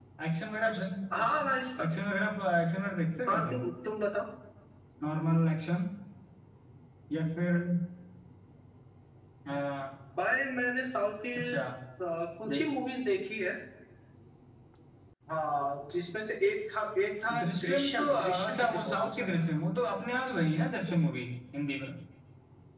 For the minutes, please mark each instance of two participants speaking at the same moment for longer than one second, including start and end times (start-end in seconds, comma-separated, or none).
17.4-19.5